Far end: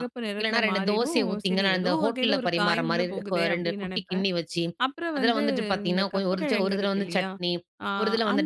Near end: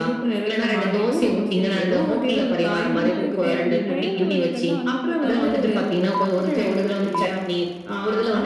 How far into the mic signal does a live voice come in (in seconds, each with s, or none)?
3.0 s